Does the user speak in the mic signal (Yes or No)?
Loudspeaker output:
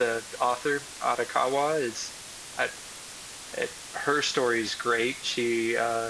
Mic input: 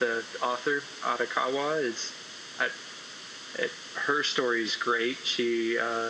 No